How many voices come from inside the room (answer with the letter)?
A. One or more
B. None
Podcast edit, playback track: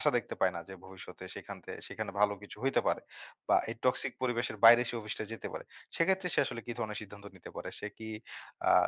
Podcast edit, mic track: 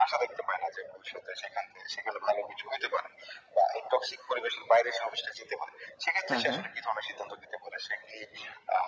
A